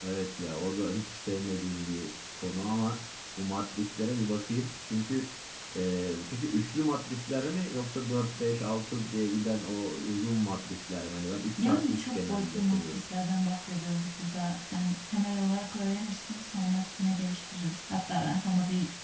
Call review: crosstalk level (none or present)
present